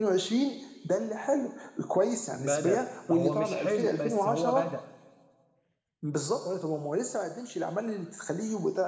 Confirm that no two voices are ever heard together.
No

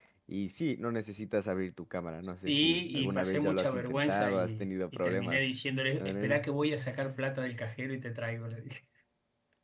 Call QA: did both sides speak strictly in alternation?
No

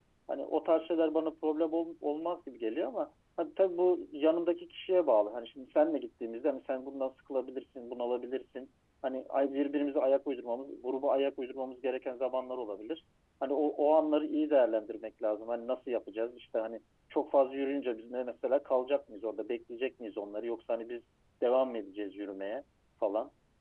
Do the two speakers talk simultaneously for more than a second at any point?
No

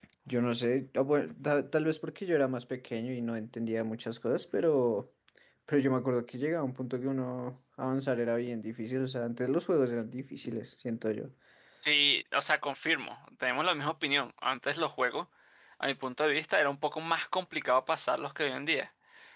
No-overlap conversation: Yes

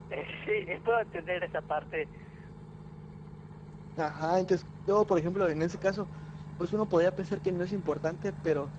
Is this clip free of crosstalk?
Yes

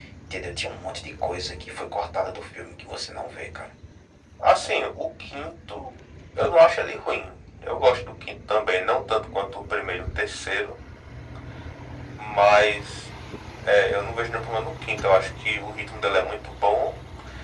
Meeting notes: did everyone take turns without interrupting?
Yes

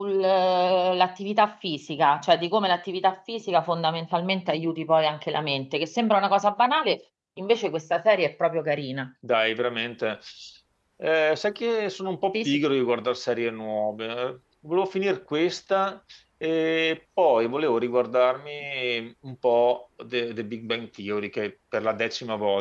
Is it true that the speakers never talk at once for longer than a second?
Yes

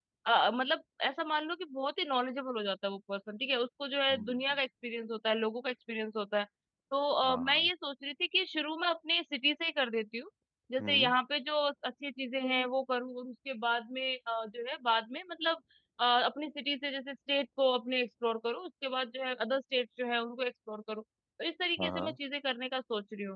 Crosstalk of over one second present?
No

